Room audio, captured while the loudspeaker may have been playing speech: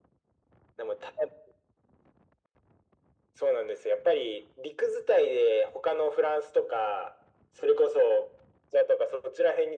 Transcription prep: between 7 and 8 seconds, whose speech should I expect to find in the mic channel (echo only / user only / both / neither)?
echo only